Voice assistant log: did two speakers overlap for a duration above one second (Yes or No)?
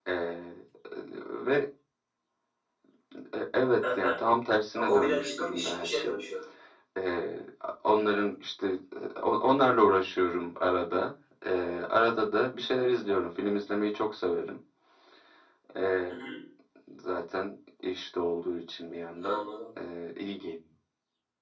Yes